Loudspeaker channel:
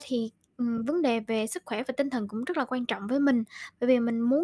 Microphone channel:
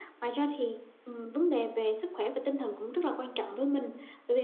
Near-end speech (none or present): none